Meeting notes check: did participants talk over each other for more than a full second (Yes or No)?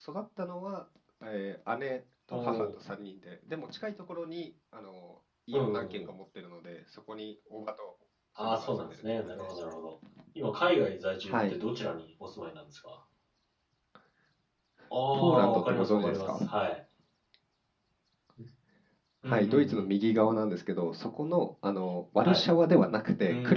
Yes